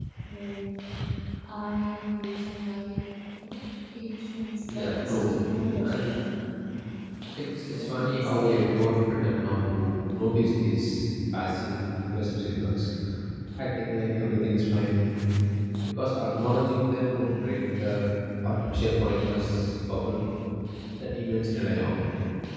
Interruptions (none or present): present